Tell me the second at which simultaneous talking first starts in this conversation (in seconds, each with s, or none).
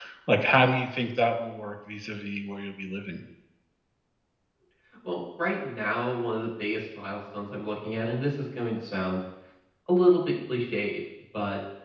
none